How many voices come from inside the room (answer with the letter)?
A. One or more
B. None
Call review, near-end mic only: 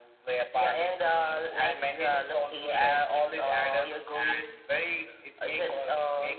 B